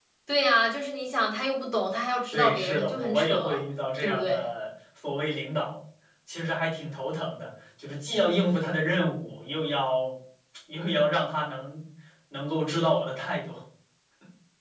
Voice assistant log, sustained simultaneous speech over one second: present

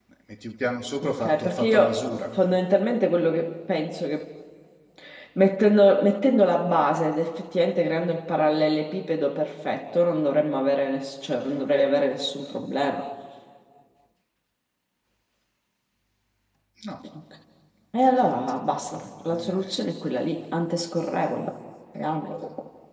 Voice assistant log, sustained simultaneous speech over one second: present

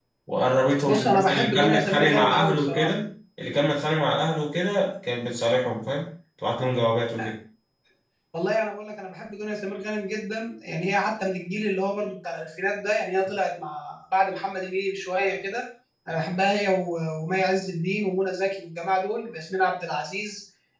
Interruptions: present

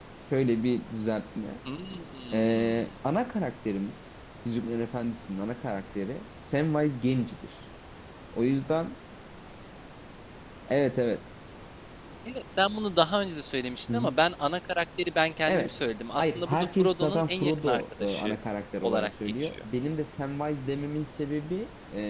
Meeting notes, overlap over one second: present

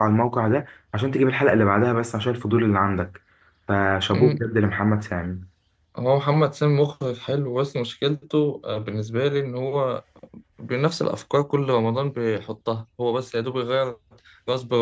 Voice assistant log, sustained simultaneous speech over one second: none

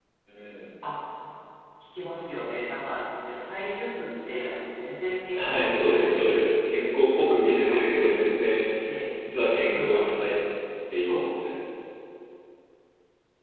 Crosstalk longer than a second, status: present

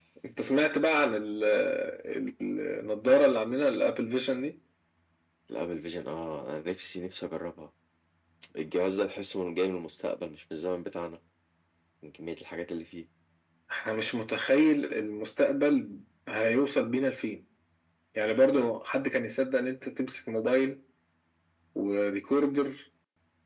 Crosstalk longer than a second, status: none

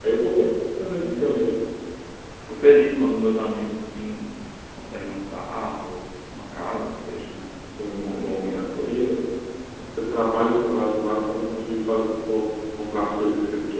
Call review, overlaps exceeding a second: present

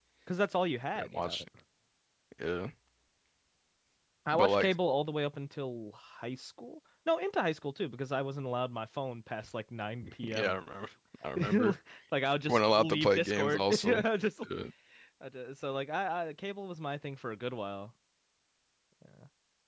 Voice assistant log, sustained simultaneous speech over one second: present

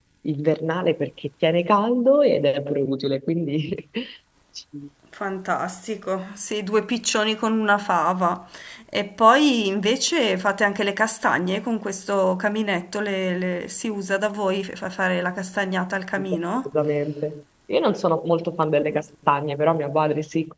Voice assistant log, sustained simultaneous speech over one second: none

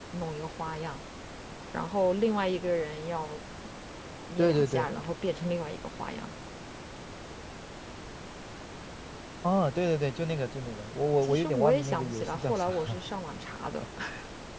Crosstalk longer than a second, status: present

